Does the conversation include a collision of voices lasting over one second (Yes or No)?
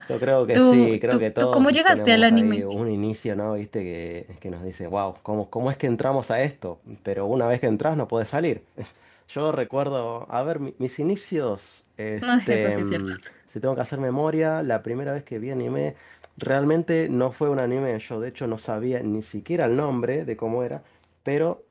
Yes